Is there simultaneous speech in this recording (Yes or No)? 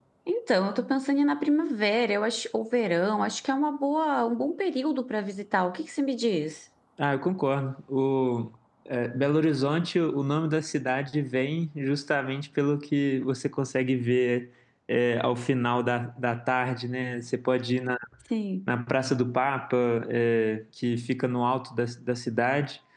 No